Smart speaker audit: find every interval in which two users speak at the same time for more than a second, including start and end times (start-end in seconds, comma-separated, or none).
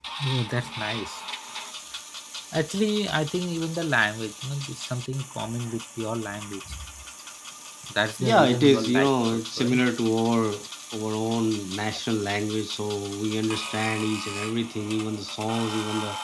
8.2-9.8